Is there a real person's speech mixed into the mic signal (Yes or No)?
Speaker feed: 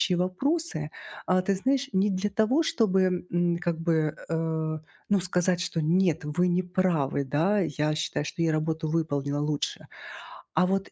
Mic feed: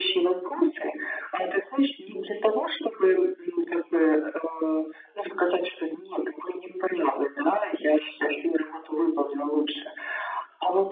No